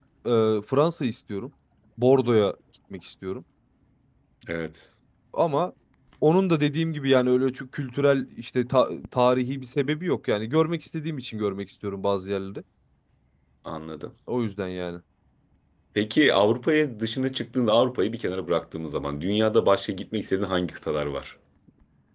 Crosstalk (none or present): none